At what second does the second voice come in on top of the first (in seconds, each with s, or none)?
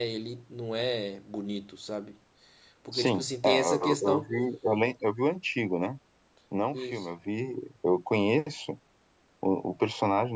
2.9 s